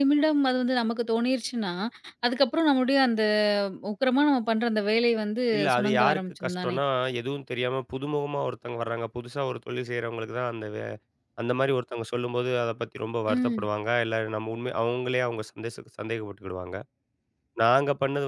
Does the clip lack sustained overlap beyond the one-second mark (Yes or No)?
No